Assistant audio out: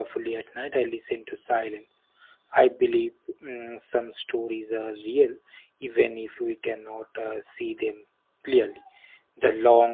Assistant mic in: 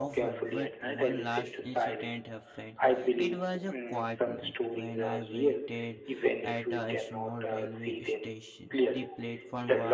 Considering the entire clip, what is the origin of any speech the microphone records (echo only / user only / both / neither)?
both